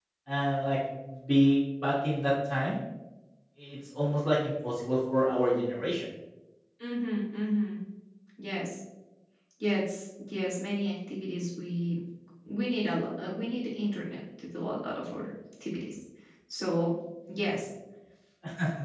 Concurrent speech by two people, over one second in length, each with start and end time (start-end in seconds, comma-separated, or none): none